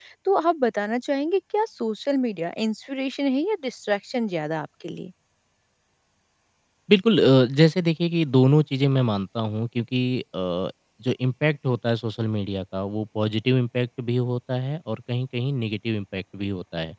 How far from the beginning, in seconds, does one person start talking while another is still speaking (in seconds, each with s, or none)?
none